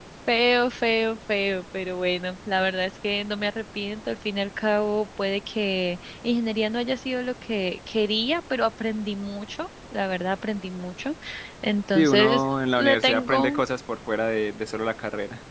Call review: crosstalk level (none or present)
present